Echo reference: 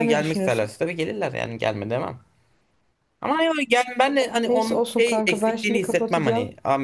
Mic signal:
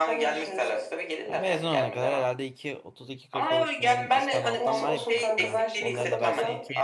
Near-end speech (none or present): present